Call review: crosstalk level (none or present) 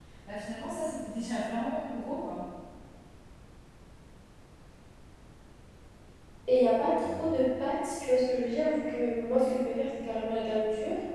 none